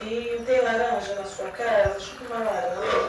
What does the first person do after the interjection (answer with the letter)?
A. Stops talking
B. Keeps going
B